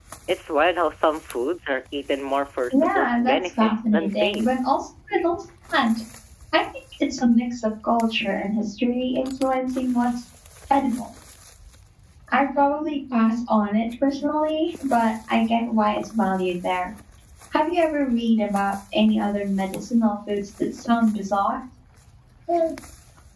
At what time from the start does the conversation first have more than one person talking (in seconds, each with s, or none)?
2.7 s